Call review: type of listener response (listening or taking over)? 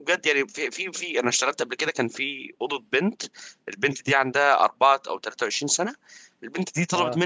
listening